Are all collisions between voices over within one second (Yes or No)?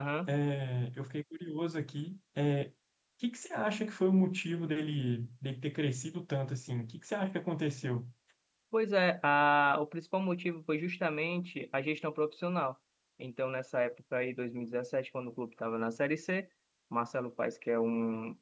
Yes